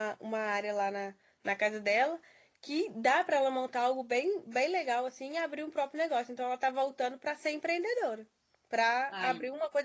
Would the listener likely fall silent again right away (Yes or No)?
Yes